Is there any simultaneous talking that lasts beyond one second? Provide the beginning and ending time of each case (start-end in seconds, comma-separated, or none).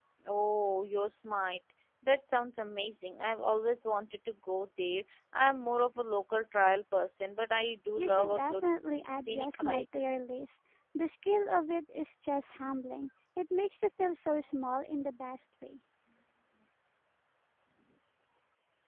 8.0-9.8